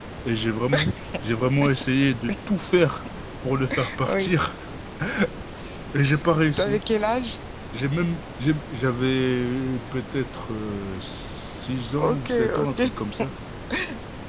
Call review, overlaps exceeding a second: present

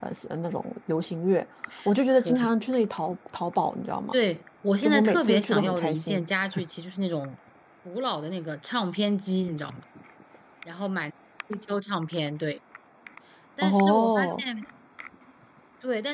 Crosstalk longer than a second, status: present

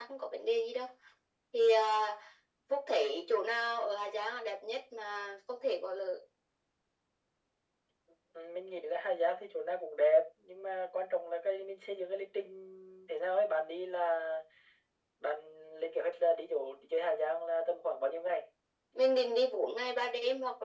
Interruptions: none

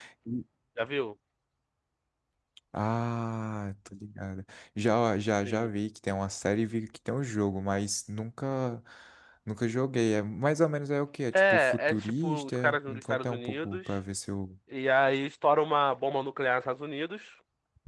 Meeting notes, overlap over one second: present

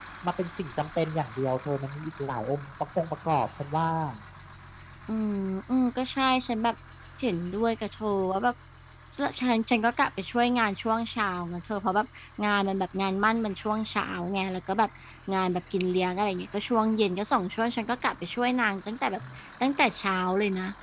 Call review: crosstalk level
none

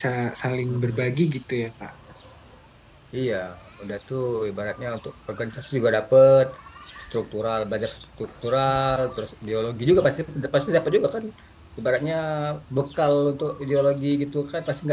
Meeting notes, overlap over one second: none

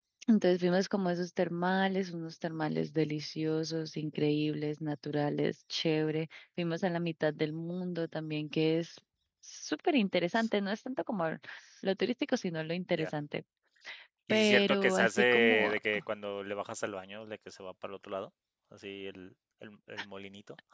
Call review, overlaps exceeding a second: present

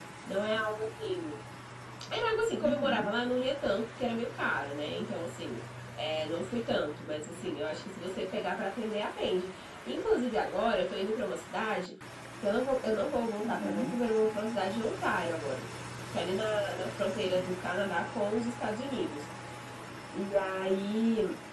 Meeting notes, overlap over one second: none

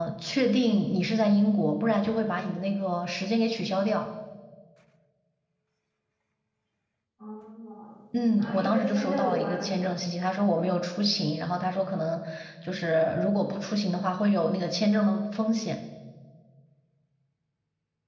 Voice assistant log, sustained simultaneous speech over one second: present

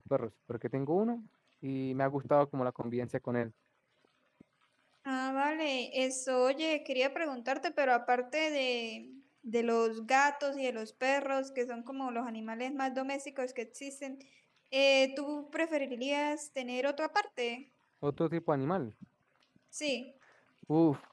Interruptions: none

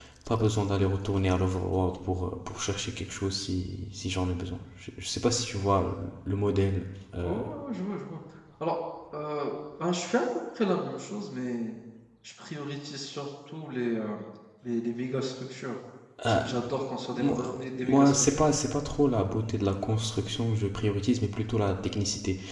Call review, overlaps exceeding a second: present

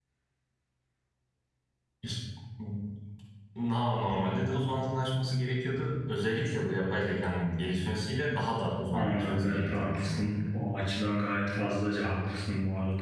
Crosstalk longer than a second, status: present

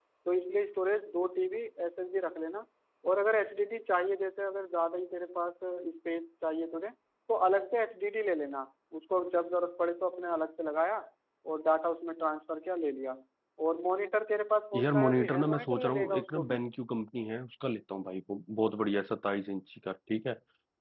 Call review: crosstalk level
present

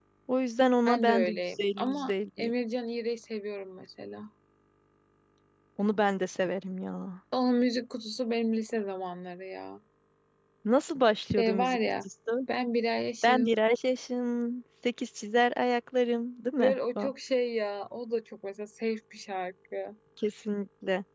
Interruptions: present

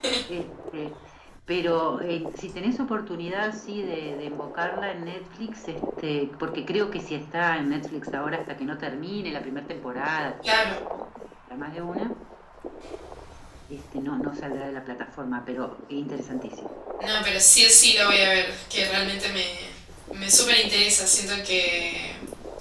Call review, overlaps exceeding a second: none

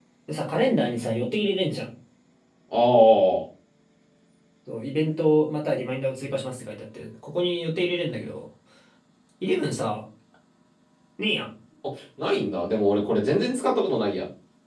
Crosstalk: none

